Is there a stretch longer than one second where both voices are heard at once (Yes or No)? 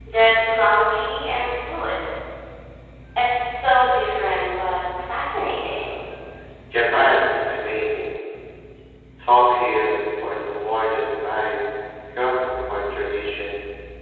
No